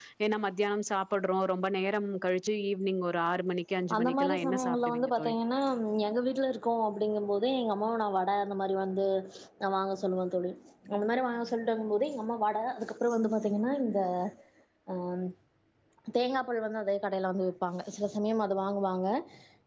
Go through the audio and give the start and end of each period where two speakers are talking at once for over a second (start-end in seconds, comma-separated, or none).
4.0-5.3